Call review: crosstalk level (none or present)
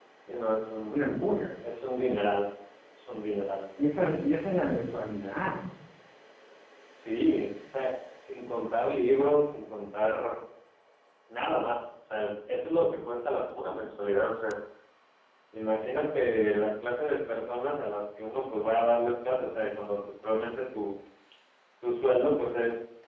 none